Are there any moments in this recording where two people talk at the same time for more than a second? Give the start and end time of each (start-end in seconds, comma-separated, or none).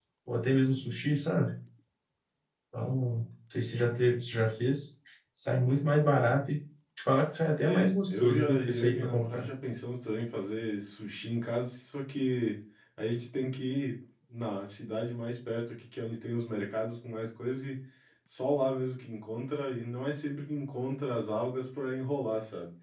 7.6-9.5